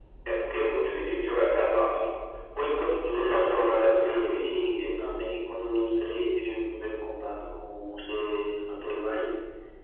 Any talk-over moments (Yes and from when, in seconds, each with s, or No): Yes, from 3.1 s